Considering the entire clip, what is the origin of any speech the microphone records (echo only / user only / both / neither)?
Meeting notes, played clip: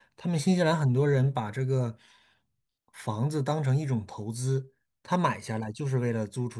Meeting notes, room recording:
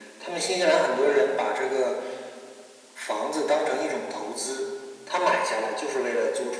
echo only